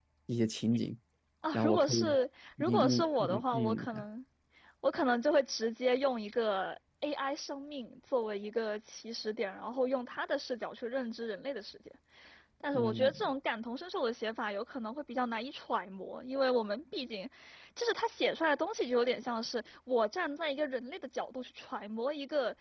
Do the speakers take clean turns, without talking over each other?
No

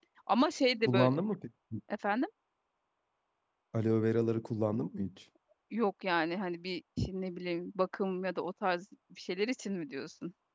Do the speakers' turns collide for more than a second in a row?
No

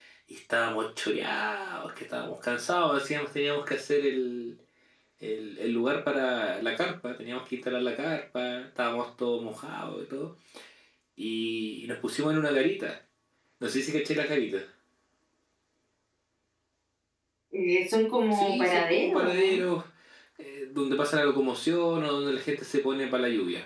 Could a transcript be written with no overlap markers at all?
No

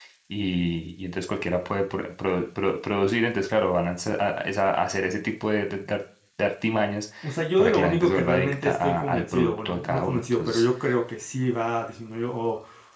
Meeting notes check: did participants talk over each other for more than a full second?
Yes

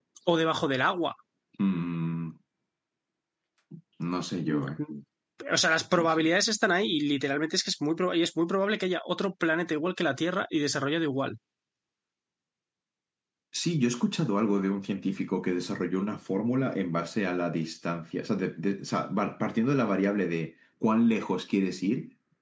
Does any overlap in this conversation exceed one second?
No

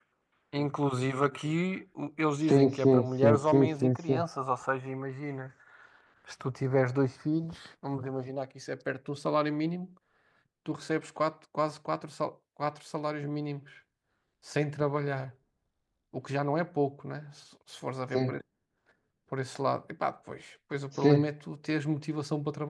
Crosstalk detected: Yes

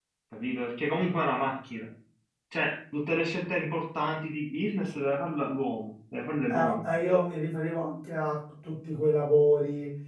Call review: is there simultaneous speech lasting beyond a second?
No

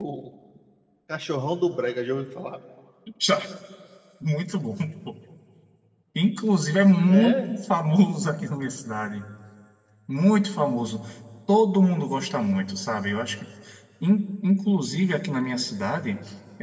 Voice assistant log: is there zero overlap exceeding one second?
Yes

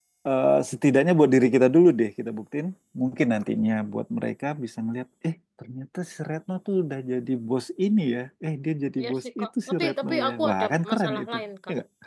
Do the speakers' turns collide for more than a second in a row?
Yes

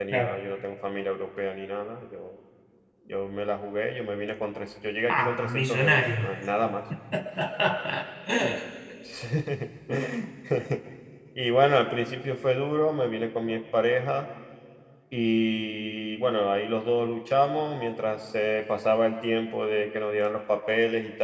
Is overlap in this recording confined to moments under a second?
No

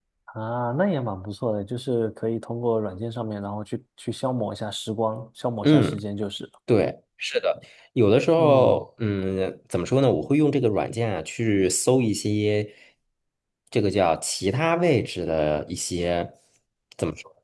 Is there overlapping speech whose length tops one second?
No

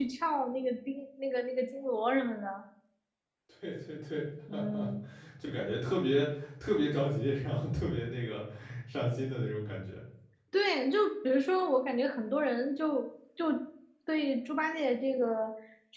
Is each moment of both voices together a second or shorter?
Yes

